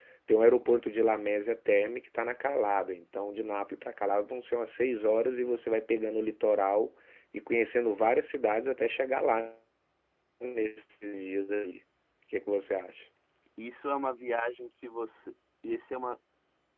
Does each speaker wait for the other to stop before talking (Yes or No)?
Yes